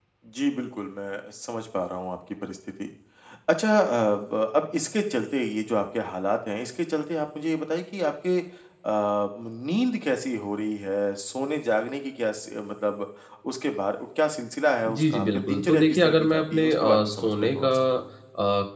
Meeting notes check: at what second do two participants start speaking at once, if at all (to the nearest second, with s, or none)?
15 s